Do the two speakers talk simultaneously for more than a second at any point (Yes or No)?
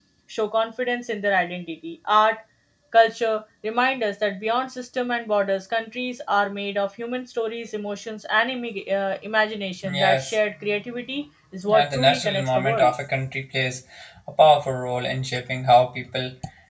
Yes